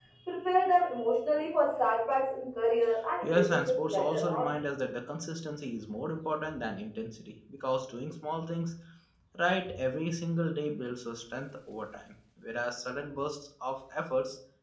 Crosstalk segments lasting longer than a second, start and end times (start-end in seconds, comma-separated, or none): 3.2-4.5